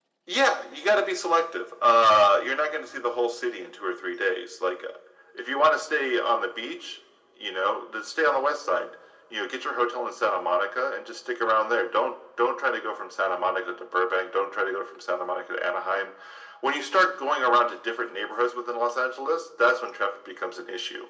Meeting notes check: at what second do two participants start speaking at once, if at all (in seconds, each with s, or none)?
none